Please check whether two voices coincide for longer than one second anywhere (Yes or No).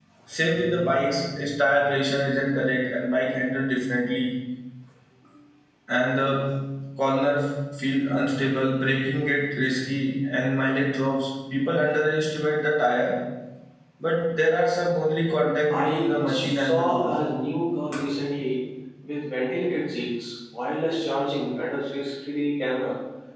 Yes